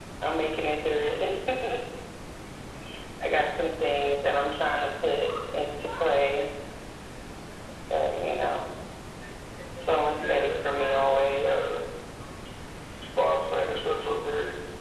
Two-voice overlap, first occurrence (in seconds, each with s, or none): 10.2 s